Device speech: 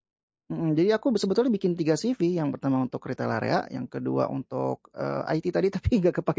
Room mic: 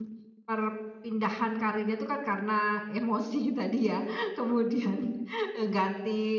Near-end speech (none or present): present